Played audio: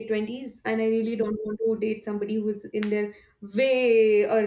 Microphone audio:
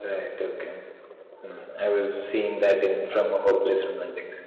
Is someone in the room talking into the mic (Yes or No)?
Yes